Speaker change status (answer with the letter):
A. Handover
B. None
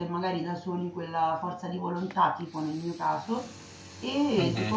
B